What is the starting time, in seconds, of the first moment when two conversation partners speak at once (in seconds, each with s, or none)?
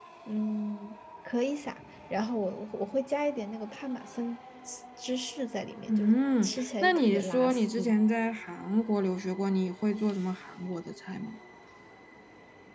5.9 s